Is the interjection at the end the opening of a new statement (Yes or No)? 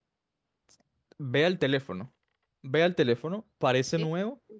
No